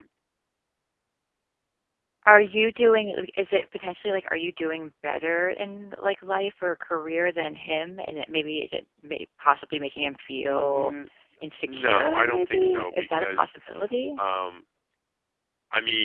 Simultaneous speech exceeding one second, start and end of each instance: 11.6-13.5

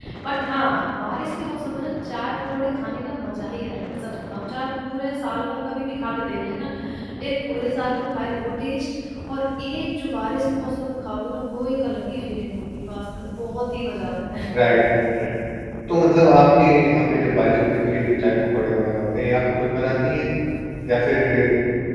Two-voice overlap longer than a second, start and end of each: none

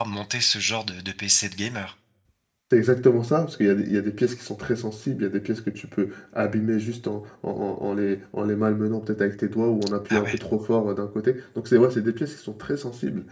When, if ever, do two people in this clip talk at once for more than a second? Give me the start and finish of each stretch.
none

